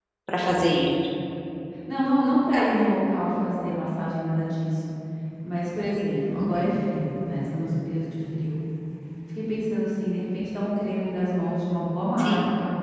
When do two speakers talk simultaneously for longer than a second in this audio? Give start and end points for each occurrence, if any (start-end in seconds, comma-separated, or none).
none